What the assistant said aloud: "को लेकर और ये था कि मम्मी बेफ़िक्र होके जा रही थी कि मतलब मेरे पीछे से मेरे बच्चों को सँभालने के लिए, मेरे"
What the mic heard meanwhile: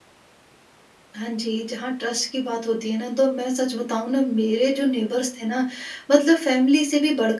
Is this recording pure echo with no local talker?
No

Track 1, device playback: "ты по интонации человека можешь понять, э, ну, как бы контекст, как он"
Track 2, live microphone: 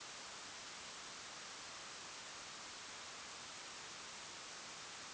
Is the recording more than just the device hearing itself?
No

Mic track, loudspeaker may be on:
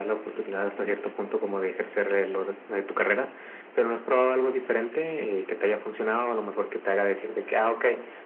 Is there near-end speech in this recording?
No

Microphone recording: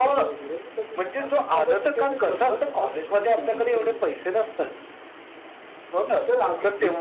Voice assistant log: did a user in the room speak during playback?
Yes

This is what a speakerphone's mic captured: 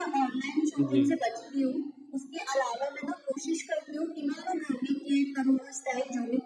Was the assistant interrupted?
Yes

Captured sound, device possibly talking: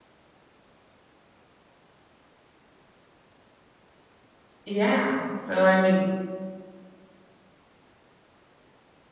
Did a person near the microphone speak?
Yes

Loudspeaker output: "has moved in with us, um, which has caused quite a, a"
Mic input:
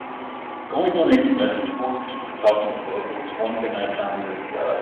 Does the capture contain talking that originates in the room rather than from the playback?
Yes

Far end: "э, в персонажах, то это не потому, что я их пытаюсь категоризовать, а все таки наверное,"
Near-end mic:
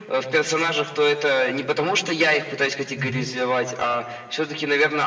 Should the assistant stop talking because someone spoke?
Yes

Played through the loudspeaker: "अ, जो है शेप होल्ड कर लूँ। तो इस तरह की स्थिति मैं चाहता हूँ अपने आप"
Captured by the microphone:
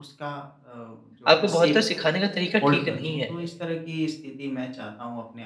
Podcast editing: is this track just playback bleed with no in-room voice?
No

